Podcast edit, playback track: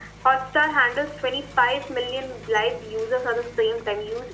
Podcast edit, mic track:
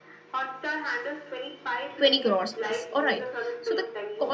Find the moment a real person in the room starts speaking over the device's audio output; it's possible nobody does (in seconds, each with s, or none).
2.0 s